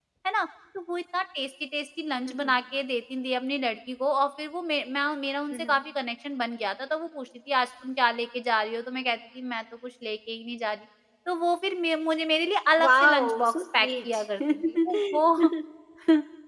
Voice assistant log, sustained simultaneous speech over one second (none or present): present